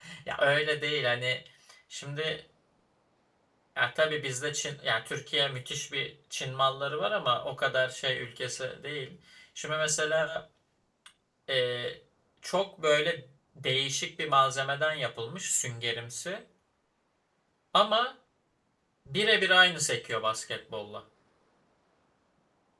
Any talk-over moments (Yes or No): No